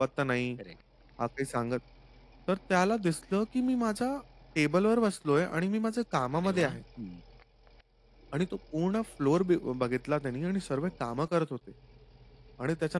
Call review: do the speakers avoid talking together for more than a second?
Yes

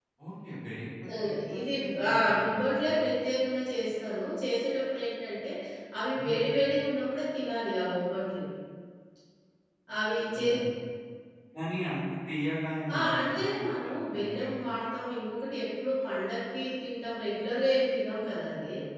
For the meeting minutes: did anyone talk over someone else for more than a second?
Yes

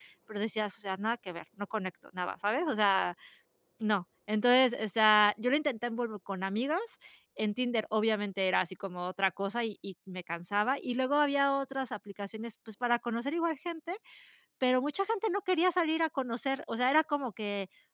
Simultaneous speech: No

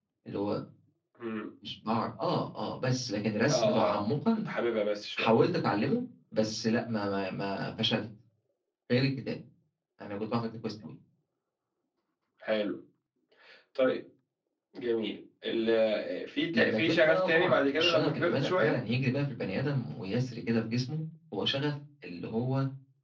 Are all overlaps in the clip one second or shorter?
No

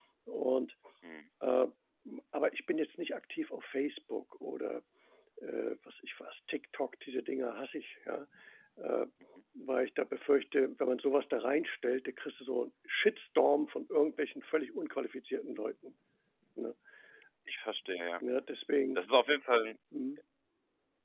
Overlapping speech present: No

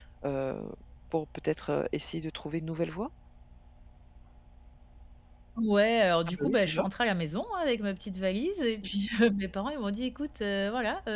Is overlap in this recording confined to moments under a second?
Yes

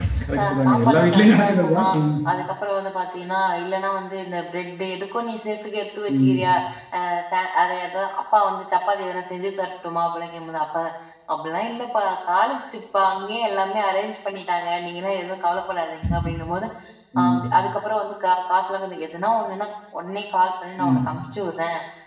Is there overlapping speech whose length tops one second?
Yes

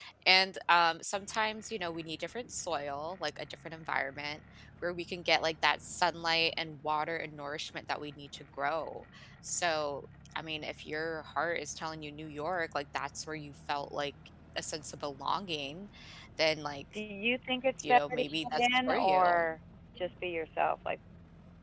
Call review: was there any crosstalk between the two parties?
Yes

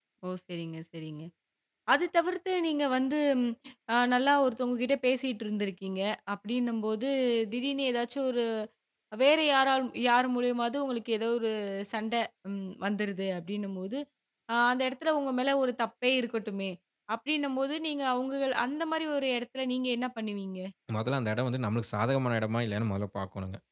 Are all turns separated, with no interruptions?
Yes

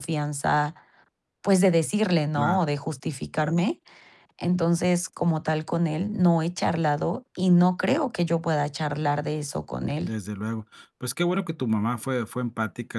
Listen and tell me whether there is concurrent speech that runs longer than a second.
No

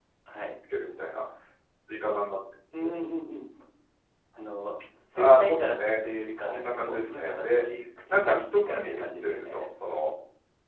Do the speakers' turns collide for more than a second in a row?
Yes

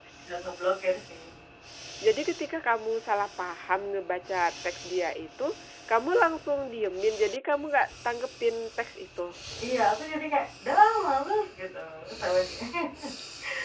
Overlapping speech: No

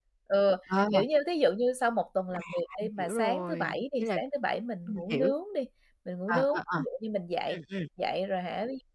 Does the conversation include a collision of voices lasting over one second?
Yes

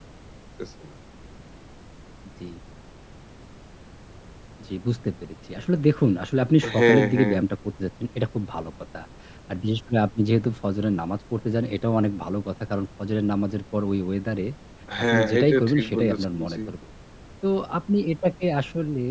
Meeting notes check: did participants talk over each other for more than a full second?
Yes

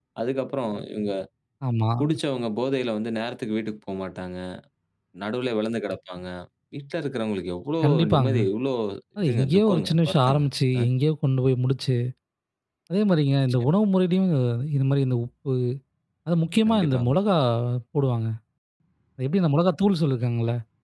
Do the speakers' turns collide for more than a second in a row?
Yes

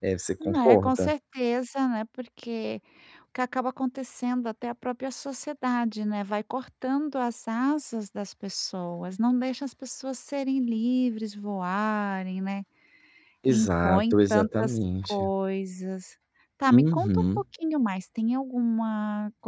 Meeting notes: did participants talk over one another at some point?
Yes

